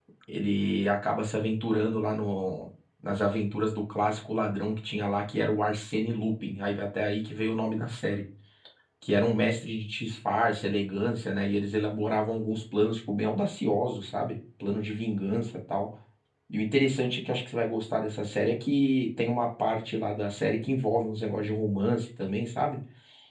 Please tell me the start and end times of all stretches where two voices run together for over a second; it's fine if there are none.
none

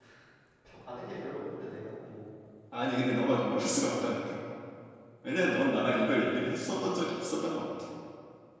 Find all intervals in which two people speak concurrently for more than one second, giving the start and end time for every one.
none

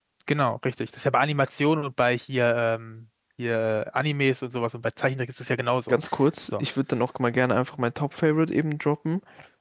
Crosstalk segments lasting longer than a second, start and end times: none

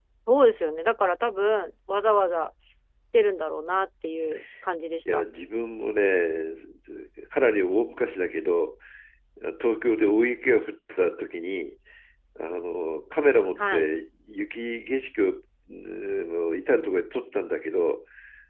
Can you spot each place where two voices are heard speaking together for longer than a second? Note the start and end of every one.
none

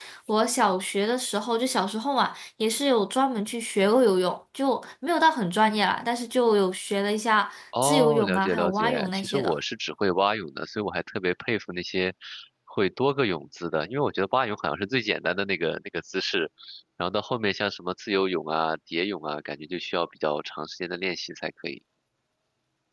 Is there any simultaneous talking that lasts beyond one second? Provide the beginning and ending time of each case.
7.8-9.6

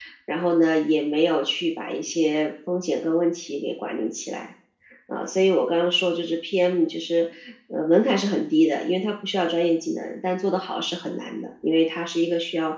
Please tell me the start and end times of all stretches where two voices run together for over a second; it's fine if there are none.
none

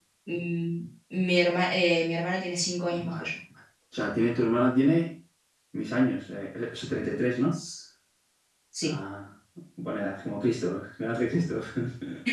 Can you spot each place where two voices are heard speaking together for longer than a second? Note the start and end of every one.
none

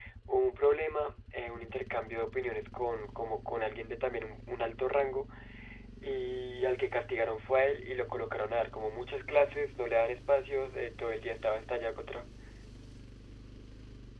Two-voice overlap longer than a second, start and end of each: none

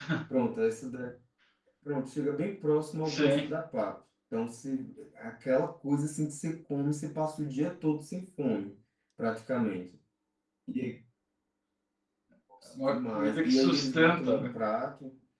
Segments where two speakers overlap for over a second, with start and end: 12.9-14.5

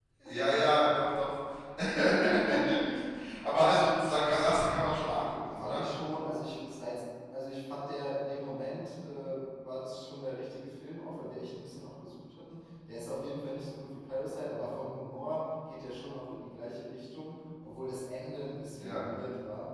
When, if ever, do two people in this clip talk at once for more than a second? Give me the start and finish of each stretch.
none

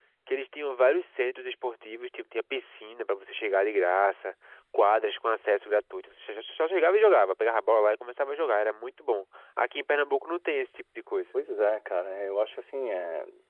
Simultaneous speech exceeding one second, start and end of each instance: none

